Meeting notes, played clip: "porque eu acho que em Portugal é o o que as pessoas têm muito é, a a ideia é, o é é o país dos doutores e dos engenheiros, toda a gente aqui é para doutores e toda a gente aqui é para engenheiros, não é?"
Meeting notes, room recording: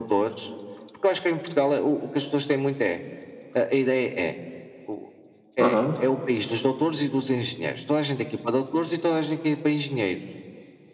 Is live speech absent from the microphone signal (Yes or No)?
No